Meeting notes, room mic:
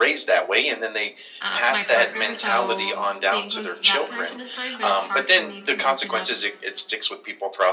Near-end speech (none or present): present